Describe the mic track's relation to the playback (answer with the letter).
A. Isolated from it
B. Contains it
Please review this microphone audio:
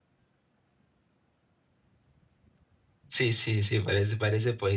A